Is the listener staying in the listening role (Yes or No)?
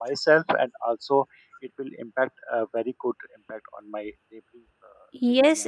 No